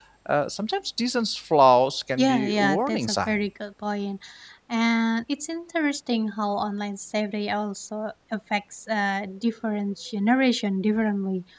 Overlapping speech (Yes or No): Yes